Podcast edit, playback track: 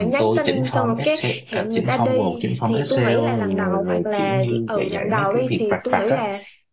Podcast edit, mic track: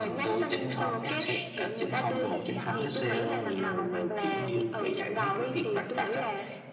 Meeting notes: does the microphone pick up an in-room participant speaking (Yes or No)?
Yes